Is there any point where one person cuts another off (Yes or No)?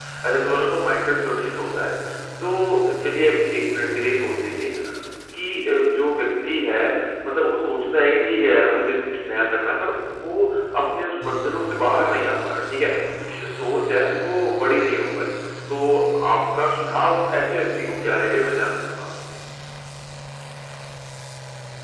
No